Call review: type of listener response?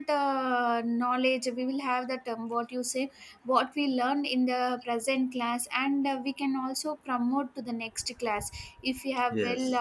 listening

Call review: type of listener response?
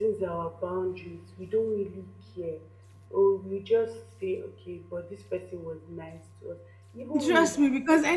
taking over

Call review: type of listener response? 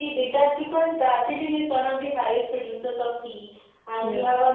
listening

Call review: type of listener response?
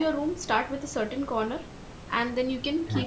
listening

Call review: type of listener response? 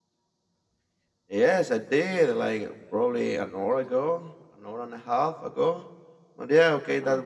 listening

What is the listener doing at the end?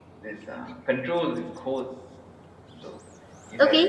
taking over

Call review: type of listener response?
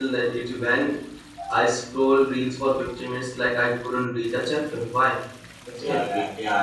taking over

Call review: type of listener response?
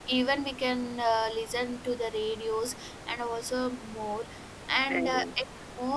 listening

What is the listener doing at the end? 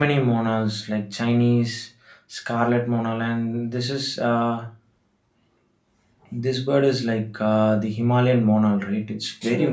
taking over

